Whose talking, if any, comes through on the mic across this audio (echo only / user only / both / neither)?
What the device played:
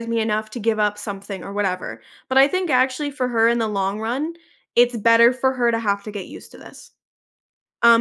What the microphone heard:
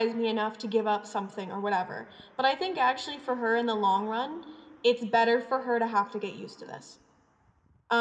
echo only